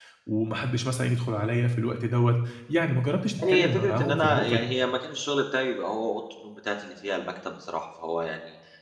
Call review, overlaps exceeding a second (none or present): present